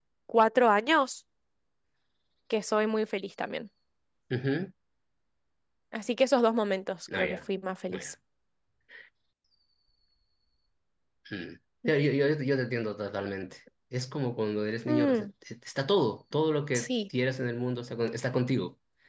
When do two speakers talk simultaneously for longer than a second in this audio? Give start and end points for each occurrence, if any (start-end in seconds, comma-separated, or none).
none